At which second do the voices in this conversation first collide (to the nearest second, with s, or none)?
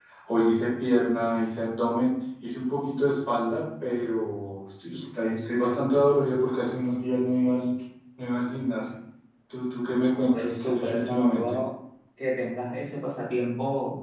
10 s